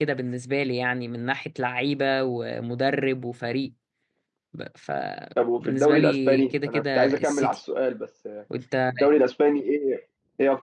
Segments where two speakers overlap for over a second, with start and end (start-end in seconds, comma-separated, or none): 5.6-7.6